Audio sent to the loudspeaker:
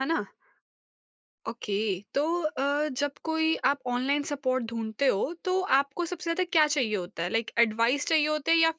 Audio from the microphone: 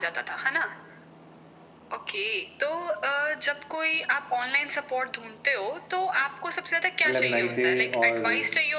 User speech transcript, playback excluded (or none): एलुमनाई थे और